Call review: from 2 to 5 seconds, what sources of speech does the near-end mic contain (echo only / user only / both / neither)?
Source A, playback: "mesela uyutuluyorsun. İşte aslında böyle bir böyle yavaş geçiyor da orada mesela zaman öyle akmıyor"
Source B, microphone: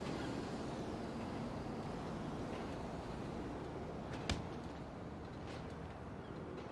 neither